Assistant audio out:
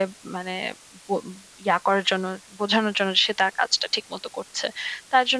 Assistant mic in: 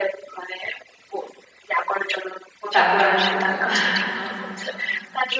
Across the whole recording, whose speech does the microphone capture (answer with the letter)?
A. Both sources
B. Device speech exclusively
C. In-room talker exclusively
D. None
A